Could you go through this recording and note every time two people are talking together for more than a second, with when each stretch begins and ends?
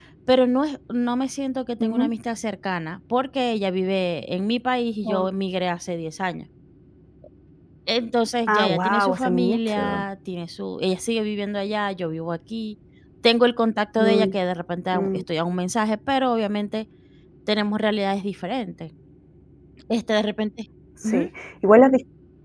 8.5-9.8

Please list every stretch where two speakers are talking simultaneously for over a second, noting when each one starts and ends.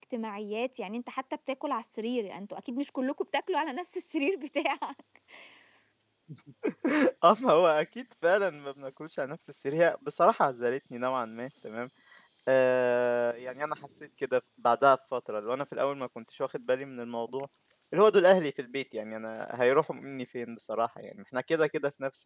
none

